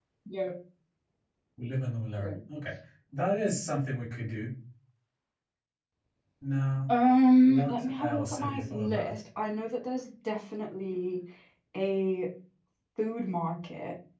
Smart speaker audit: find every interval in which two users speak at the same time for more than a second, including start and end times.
7.4-9.2

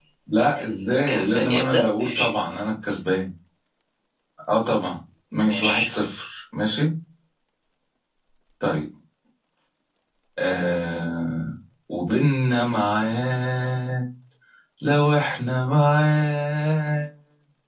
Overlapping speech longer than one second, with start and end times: 1.1-2.3

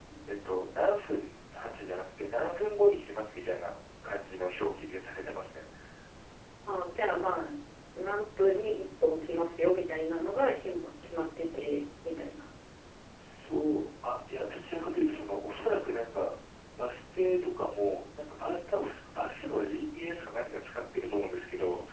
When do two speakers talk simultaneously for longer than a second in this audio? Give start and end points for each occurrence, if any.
none

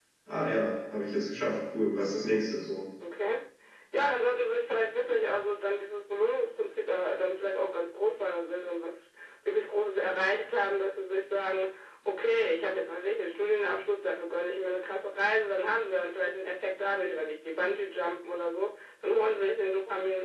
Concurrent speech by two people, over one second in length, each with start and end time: none

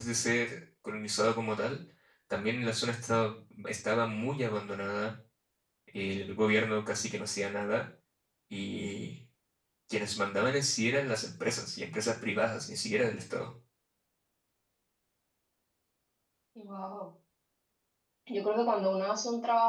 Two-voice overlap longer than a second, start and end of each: none

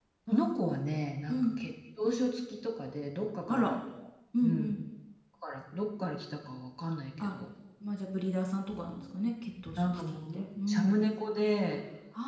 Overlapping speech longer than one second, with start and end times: 9.8-11.0

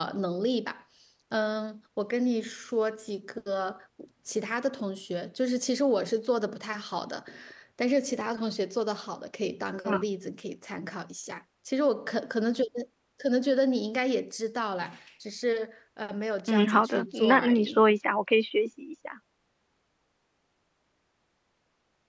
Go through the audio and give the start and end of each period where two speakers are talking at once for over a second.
16.5-17.8

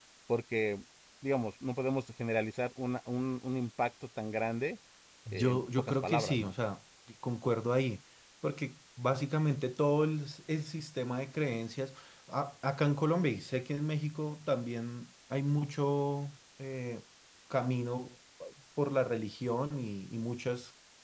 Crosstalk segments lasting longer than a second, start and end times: 5.3-6.5

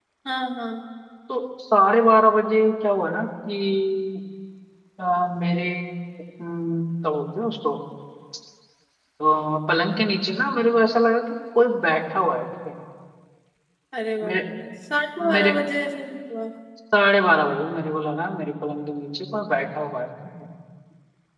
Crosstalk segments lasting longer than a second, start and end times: none

